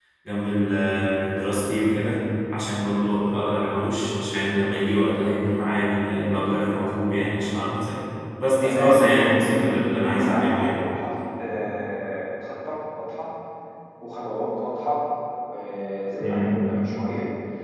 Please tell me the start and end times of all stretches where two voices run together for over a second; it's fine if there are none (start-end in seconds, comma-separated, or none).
8.6-10.7